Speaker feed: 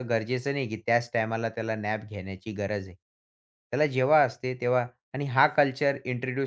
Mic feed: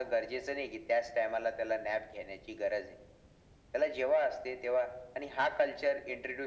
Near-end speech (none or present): none